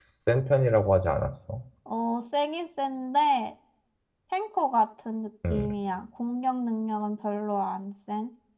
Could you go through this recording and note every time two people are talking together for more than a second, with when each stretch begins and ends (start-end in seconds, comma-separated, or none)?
none